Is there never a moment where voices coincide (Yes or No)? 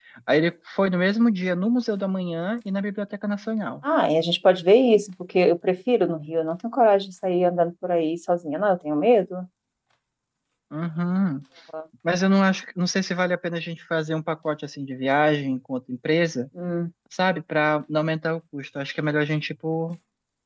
Yes